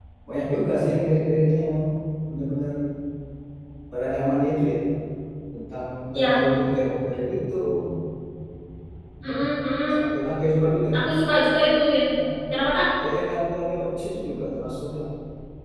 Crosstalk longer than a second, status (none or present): none